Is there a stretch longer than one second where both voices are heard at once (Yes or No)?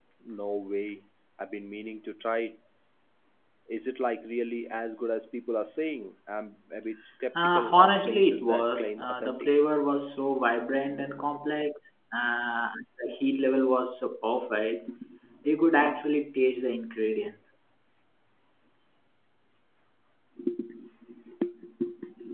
Yes